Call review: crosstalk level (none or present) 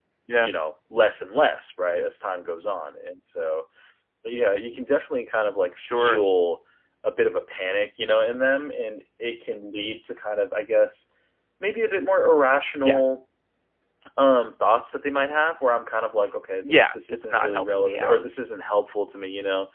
present